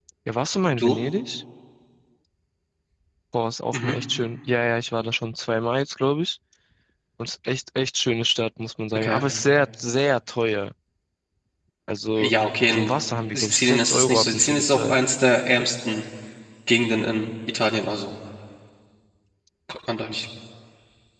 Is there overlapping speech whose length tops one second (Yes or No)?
Yes